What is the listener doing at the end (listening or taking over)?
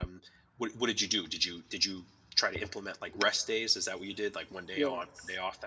taking over